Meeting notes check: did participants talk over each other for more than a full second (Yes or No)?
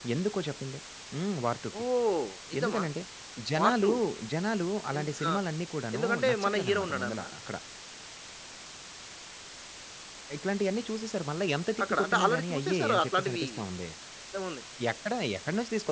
Yes